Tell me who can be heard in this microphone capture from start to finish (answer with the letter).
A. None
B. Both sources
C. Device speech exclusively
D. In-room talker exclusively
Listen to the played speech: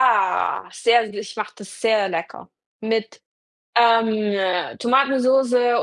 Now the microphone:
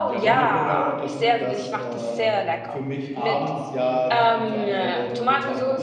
B